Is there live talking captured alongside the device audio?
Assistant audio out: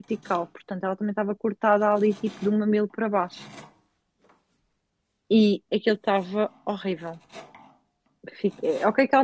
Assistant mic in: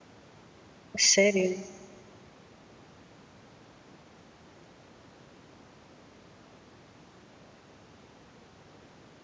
Yes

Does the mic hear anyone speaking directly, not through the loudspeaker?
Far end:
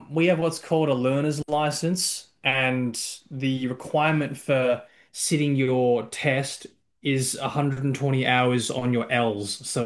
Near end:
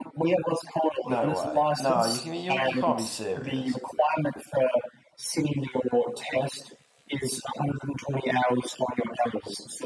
Yes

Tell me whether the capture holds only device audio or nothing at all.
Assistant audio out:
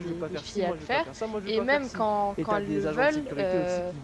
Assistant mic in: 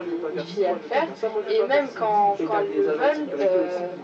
No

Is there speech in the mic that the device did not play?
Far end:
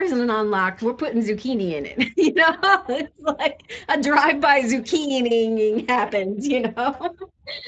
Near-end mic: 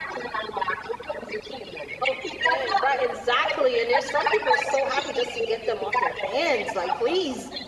Yes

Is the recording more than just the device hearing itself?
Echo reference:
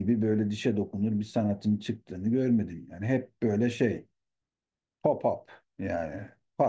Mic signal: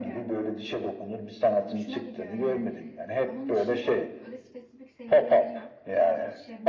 Yes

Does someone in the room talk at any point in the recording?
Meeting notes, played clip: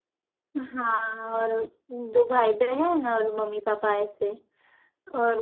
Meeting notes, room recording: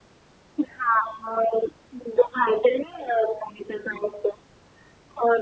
No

